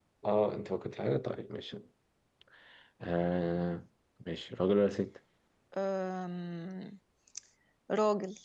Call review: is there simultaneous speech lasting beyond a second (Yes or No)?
No